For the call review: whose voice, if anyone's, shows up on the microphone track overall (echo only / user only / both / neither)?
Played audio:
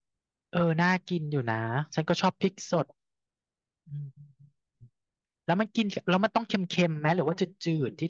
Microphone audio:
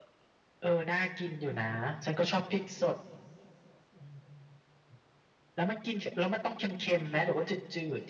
echo only